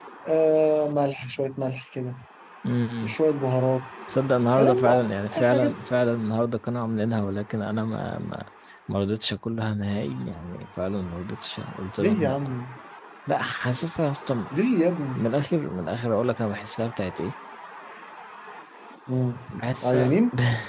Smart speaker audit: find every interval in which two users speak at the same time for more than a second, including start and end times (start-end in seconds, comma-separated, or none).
none